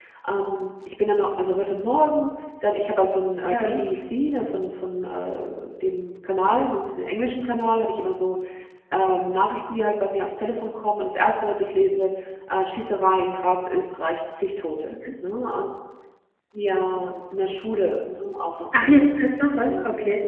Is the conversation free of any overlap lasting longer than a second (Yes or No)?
Yes